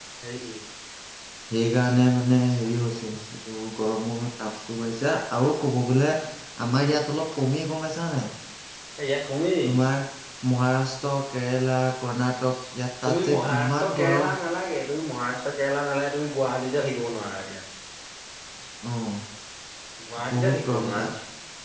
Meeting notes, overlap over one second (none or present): present